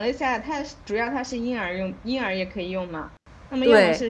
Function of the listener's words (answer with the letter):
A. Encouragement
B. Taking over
A